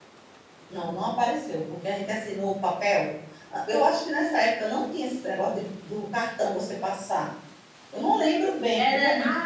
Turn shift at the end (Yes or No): Yes